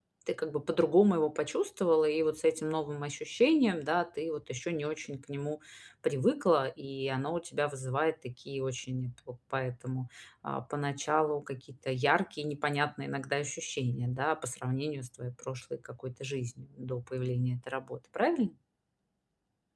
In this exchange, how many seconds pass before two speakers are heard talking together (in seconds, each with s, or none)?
none